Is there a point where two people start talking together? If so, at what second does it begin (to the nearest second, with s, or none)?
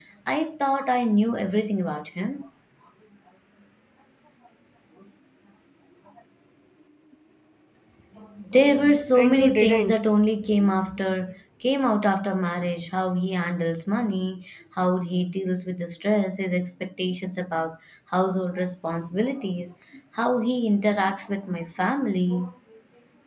9 s